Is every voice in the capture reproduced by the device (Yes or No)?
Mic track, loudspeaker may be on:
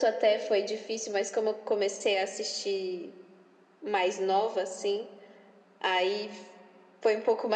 Yes